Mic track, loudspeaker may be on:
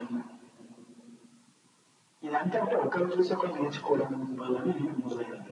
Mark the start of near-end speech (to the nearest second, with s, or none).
none